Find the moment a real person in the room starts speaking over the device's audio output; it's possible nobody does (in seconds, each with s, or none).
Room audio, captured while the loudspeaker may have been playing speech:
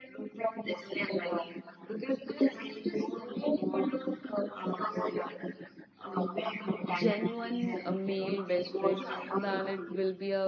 6.9 s